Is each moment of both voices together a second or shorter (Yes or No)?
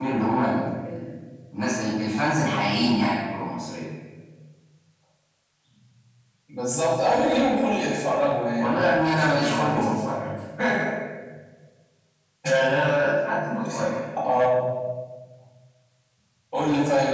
No